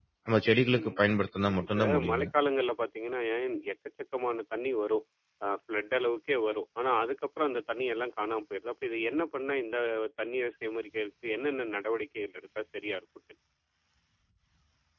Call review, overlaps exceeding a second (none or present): present